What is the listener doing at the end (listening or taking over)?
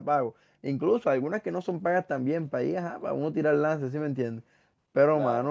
listening